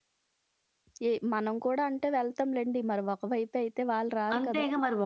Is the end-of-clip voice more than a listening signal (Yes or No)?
Yes